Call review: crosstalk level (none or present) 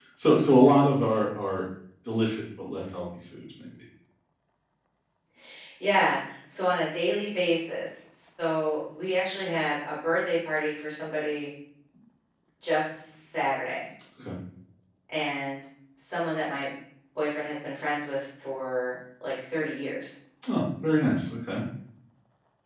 none